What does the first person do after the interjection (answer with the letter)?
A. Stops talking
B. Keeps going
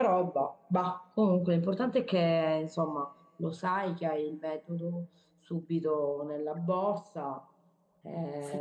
A